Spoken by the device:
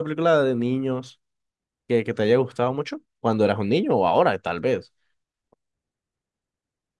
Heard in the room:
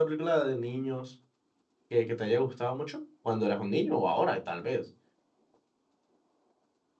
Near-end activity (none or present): none